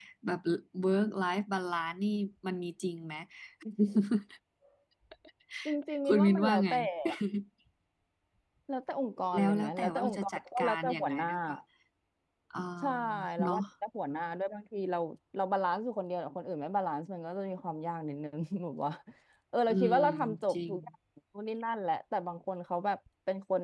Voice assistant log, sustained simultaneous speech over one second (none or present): present